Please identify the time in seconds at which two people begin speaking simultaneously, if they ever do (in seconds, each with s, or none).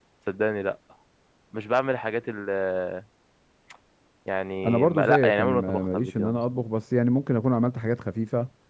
4.6 s